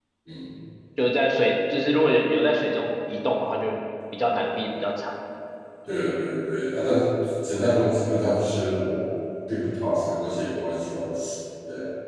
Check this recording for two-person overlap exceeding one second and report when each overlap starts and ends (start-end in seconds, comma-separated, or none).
none